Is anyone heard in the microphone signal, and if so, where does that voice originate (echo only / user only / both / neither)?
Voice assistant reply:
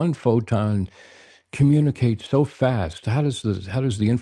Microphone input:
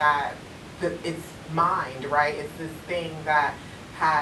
user only